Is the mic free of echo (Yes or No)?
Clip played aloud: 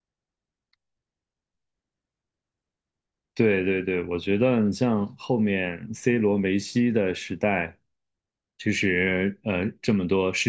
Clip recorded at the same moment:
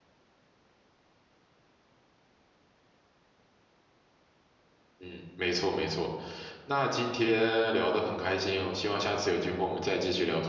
Yes